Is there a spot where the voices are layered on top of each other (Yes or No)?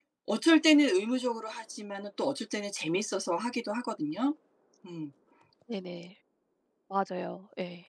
No